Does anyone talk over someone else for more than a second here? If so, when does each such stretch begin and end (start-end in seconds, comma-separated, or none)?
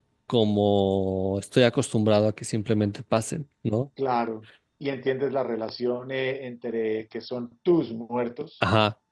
none